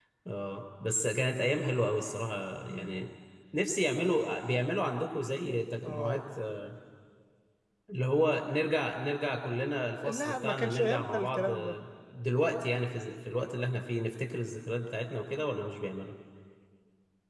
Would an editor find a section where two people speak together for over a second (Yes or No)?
Yes